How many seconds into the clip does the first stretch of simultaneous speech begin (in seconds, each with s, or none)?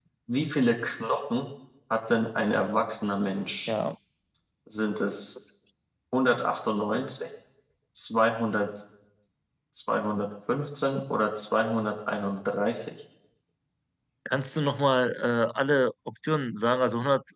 none